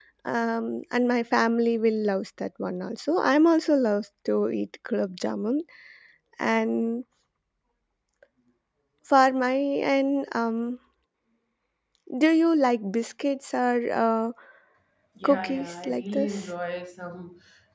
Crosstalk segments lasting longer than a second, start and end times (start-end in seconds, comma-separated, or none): 15.2-16.5